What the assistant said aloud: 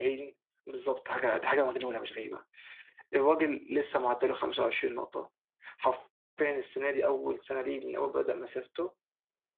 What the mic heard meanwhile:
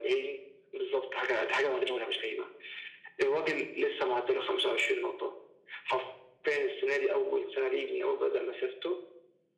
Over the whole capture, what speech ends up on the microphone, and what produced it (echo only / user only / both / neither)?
echo only